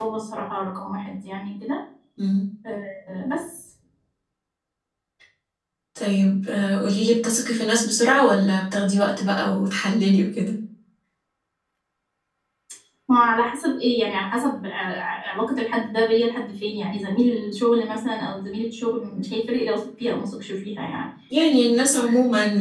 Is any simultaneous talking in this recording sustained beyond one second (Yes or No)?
No